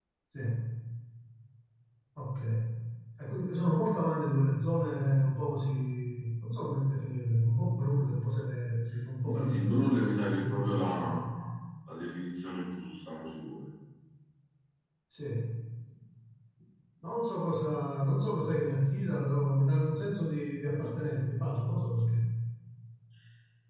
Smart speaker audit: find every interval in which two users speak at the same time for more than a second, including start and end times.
9.2-11.2

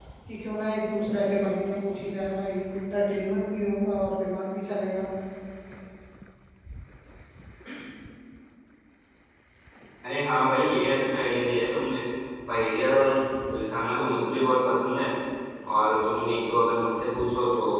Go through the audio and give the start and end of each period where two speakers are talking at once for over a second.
none

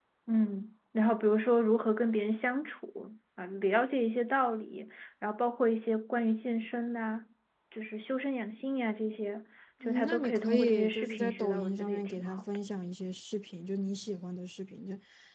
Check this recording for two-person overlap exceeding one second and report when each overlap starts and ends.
9.8-12.4

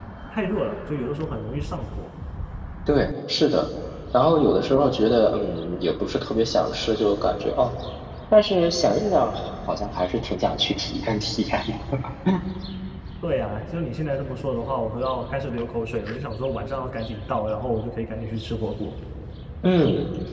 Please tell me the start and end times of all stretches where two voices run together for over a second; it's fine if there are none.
none

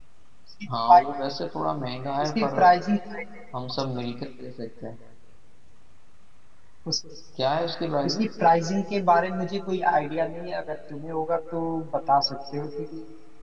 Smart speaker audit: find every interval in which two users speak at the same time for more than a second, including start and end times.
none

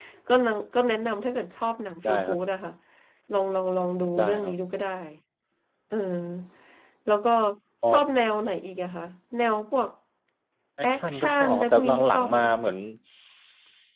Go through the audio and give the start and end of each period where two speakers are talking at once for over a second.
10.8-12.4

